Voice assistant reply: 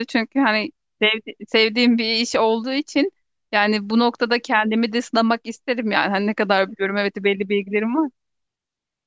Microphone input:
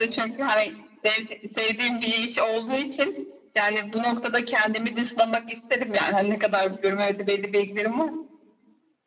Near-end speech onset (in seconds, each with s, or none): none